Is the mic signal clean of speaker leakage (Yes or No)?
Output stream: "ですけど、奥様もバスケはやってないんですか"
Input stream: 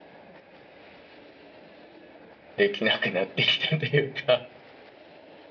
Yes